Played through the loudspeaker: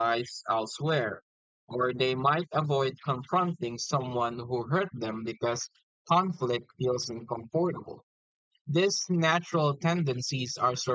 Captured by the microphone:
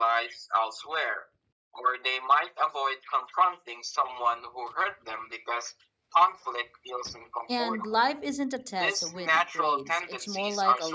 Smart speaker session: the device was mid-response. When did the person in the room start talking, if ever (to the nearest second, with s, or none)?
8 s